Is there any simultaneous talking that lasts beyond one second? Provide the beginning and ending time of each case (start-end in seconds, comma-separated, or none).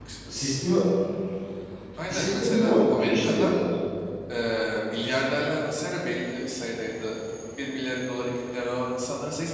2.1-3.5